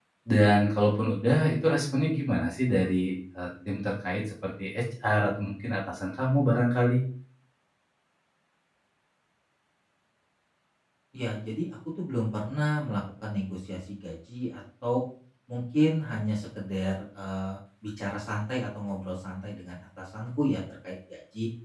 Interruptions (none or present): none